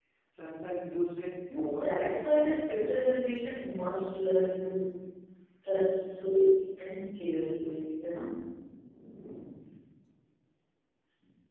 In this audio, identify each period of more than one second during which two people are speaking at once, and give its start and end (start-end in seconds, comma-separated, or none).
1.5-3.1